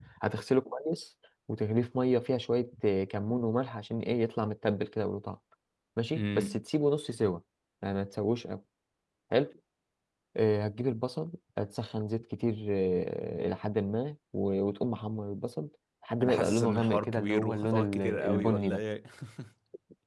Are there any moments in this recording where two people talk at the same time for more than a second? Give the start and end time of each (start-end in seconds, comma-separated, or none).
16.2-18.8